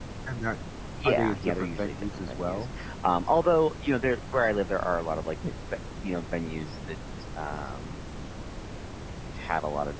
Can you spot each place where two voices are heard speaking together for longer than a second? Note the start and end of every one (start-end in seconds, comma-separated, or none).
1.0-2.6